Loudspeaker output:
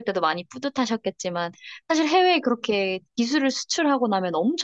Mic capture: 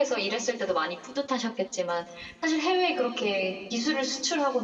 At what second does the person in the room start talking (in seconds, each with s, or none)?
none